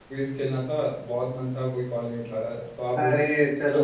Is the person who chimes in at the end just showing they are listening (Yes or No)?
No